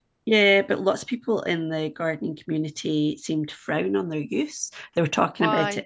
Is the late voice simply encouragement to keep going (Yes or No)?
Yes